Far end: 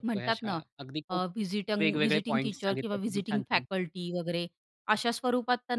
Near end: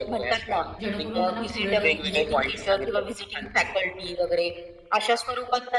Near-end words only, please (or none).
जेणेकरून त्यांना पुढे ढक म्हणजे